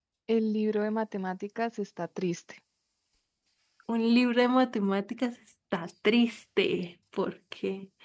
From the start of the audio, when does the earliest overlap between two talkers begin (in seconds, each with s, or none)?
none